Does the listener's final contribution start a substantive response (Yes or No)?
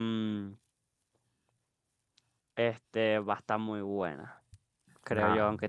No